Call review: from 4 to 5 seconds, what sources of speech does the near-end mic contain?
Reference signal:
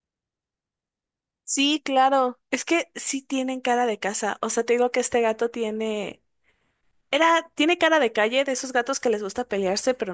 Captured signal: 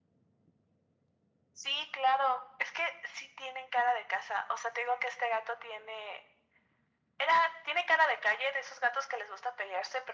echo only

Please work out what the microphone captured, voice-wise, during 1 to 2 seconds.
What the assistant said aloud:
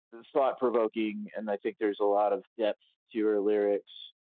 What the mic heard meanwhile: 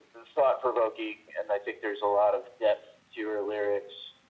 echo only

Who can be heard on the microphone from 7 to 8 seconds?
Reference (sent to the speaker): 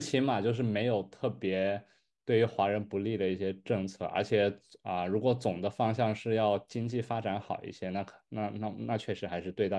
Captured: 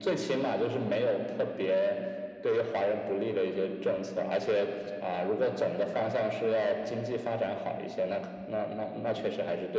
echo only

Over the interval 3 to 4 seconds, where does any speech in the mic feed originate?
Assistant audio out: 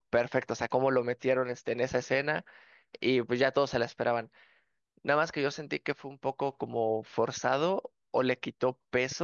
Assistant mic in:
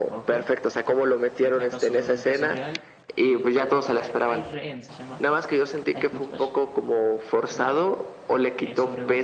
both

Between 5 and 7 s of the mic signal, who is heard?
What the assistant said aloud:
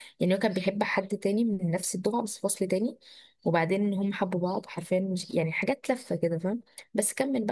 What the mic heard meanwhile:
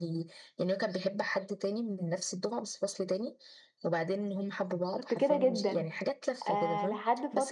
both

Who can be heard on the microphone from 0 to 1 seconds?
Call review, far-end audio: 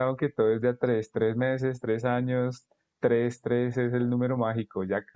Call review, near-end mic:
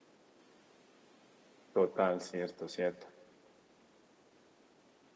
neither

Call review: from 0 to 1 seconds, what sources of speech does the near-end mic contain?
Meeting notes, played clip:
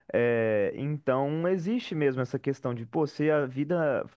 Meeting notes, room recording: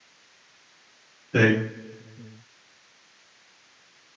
neither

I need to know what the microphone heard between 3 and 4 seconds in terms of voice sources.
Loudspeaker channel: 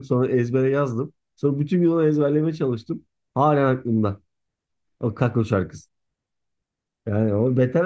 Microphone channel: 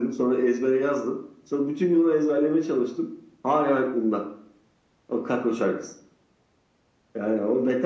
echo only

